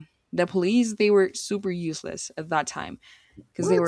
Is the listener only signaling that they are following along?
Yes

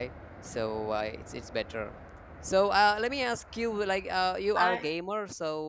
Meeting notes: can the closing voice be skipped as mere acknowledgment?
Yes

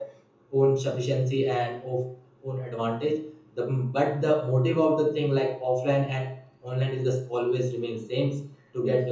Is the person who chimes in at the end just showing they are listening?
Yes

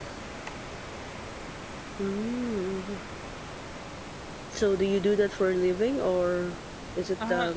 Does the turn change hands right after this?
Yes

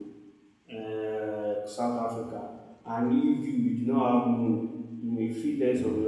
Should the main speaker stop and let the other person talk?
No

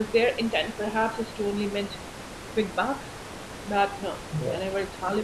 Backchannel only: Yes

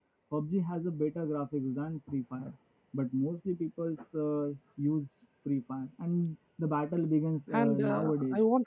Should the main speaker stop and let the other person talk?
Yes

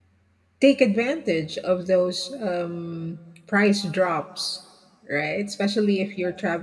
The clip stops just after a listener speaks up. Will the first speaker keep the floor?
Yes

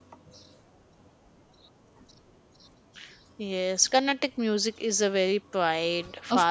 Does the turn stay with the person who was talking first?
No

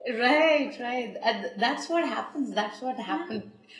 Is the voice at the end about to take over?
No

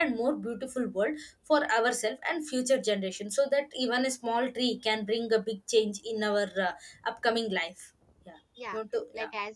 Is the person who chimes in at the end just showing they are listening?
No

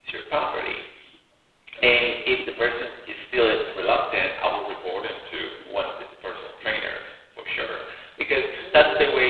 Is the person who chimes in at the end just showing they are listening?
Yes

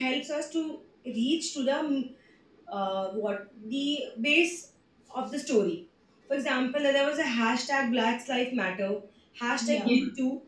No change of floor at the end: Yes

